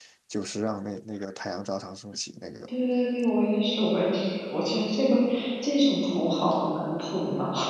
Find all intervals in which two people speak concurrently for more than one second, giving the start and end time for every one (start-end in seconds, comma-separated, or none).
none